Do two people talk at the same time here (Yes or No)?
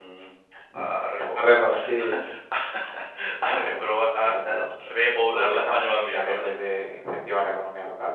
Yes